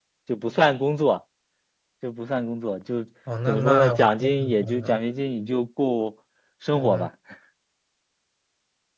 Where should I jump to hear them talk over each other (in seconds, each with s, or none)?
3.5 s